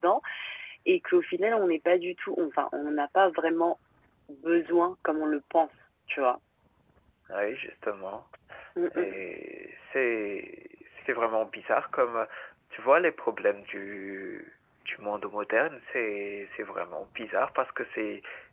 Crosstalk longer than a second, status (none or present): none